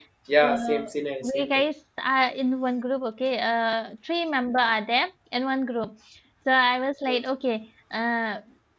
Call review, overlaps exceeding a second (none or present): none